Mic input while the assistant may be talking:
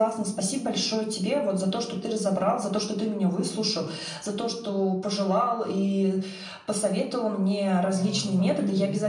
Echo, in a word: present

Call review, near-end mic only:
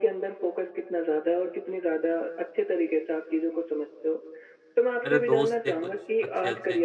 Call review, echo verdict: present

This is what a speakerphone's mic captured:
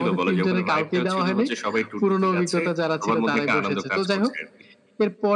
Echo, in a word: present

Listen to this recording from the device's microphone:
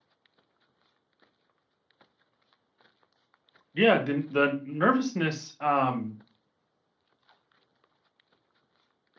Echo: none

